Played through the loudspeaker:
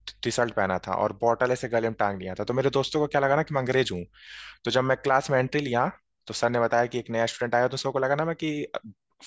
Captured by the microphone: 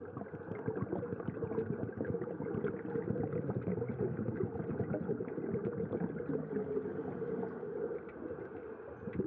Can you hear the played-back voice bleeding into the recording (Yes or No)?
No